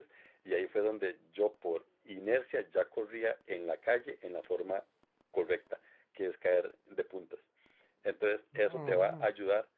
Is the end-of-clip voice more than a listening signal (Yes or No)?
No